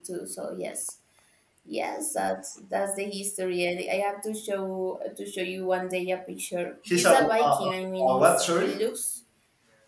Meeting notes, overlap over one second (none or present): present